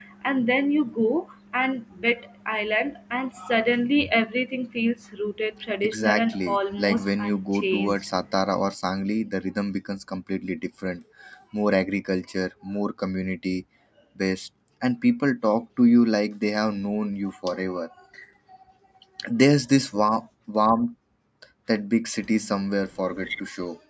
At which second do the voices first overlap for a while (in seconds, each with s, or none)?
5.8 s